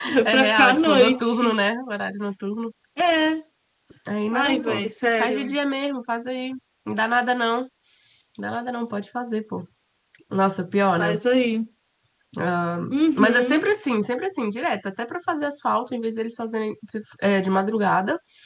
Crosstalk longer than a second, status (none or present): present